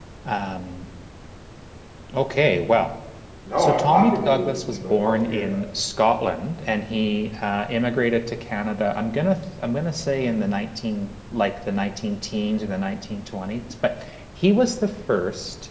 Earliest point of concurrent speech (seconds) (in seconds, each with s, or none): 3.6 s